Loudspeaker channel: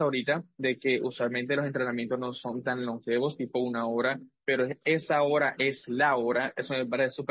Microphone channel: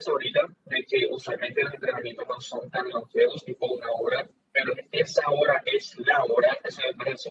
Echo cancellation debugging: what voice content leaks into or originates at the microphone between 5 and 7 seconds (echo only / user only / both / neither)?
echo only